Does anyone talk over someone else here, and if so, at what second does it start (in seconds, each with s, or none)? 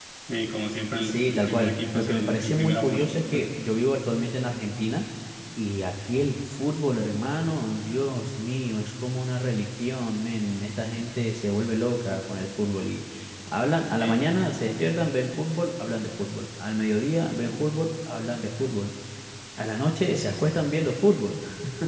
1.0 s